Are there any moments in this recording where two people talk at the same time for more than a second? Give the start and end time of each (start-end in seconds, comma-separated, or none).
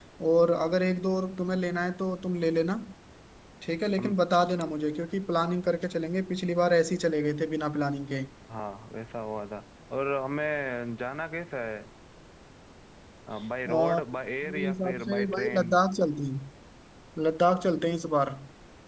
14.4-15.7